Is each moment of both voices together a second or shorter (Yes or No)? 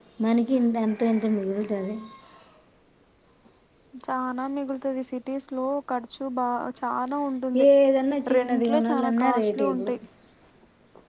No